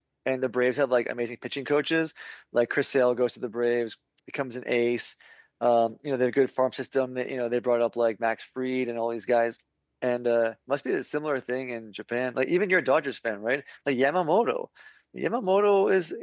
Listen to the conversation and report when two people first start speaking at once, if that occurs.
none

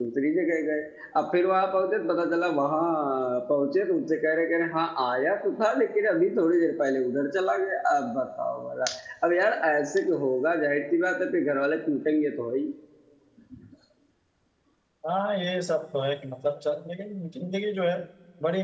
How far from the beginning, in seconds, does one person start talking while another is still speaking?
none

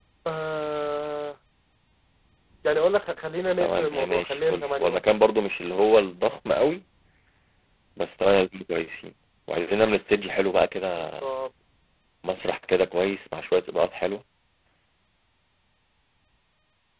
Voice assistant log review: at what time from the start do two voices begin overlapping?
3.6 s

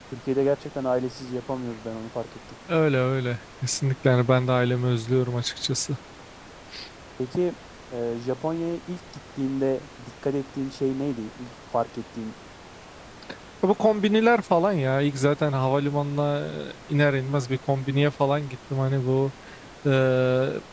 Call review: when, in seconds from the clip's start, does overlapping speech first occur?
none

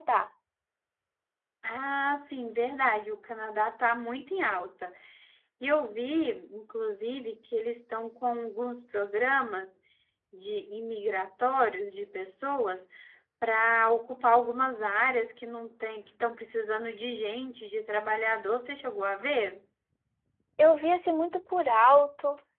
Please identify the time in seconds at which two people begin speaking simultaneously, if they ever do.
none

